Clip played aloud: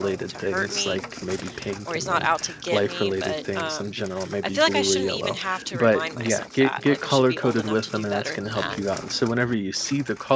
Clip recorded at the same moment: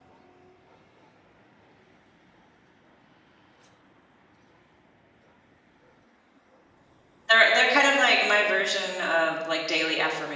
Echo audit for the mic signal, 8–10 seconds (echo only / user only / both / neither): user only